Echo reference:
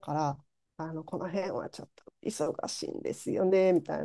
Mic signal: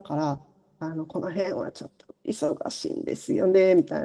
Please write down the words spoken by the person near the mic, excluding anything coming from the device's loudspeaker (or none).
none